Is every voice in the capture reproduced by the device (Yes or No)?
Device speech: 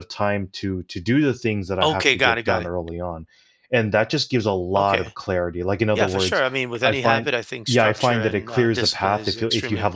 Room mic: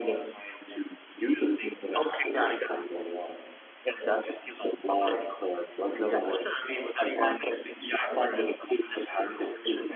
Yes